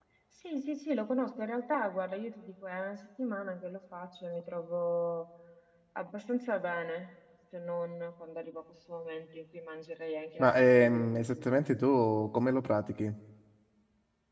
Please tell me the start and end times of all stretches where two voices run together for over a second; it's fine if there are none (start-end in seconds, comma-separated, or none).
10.4-11.6